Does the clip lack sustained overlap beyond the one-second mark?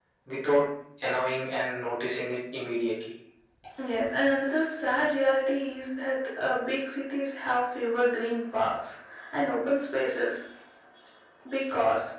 Yes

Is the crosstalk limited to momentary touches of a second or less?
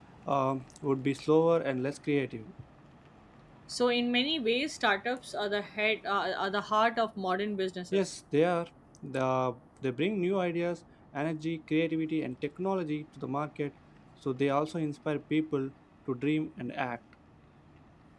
Yes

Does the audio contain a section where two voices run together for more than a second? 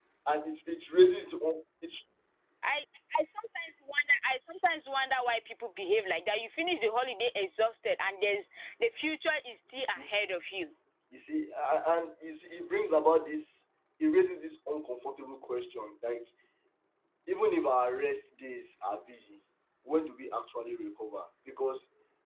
No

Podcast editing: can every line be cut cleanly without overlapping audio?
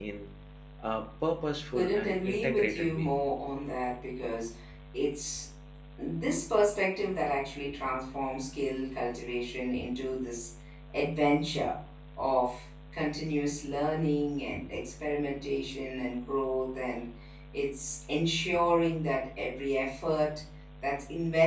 No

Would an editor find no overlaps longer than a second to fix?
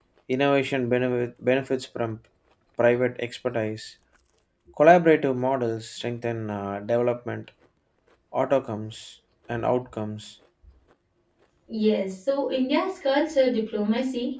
Yes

